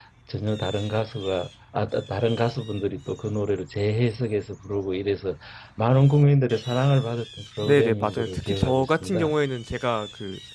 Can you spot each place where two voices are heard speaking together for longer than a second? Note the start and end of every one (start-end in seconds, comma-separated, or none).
7.6-9.3